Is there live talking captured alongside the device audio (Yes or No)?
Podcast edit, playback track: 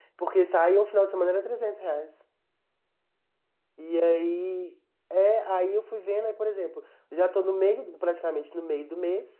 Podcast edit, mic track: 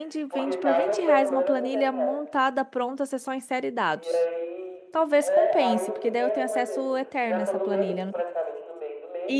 Yes